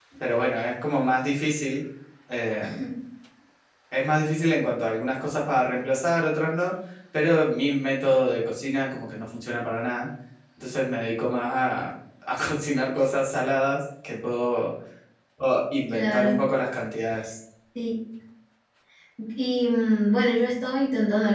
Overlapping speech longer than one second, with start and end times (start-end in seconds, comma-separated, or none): none